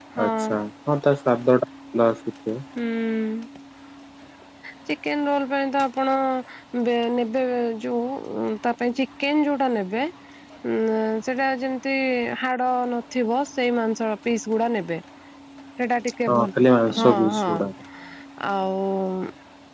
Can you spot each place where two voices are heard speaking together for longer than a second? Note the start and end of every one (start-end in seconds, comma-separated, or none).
16.3-17.5